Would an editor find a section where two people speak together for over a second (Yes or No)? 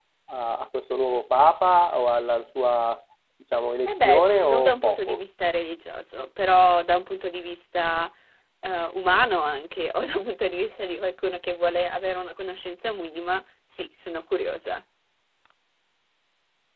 Yes